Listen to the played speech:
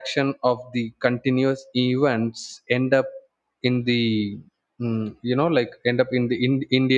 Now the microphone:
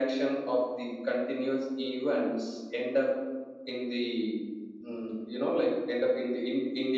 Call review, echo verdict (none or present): present